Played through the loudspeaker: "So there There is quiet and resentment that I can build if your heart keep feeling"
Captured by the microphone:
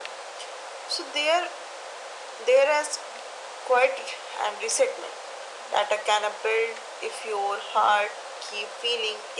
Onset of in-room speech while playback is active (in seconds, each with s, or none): none